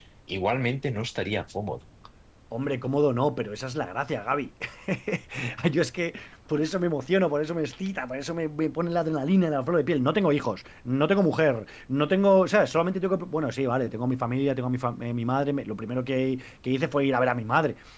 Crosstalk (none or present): none